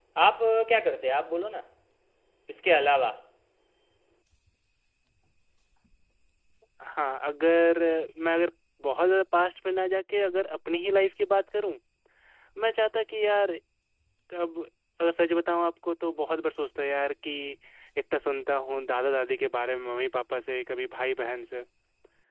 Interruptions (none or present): none